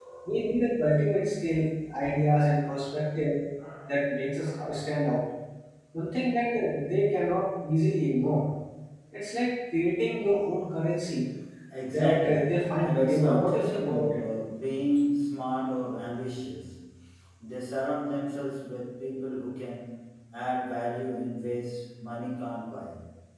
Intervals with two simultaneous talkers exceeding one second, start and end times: 11.9-14.2

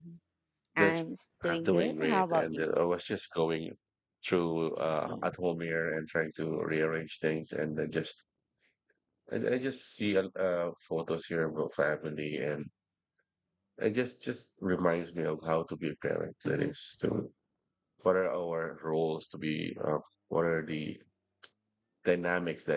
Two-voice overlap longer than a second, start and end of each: 1.4-2.7

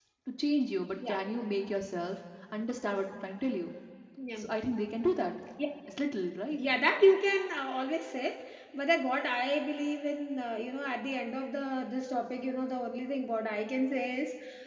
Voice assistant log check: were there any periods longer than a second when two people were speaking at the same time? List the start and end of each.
none

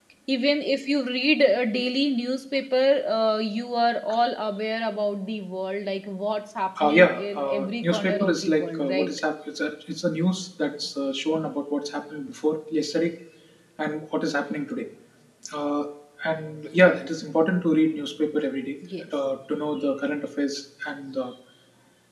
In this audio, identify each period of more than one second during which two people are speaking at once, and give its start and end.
6.8-9.1

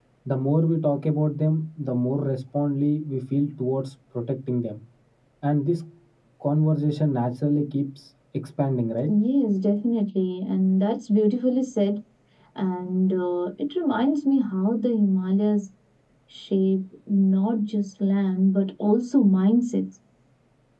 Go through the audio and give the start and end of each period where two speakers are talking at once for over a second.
none

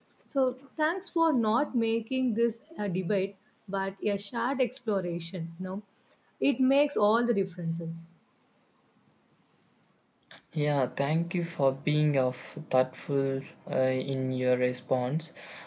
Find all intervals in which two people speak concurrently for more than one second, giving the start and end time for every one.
none

